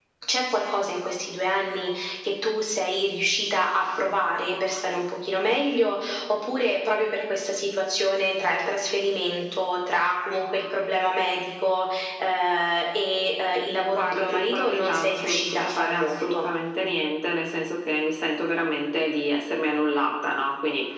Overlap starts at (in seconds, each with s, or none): 13.9 s